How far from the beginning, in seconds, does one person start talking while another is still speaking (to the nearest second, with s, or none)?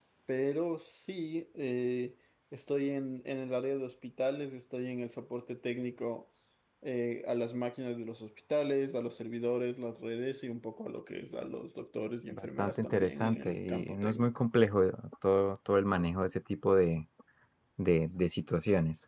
12 s